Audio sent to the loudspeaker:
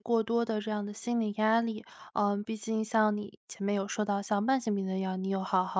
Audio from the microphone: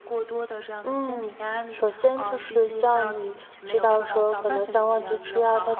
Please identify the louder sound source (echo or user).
user